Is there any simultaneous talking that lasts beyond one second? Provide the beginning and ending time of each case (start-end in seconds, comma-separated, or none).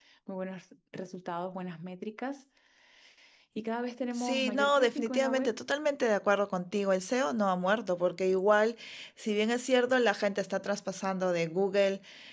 4.1-5.5